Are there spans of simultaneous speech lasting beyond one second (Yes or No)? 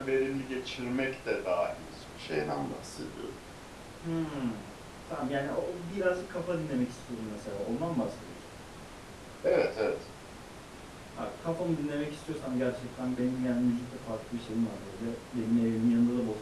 No